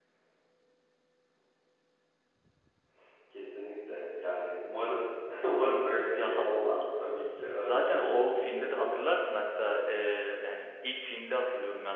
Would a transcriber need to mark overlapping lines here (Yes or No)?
Yes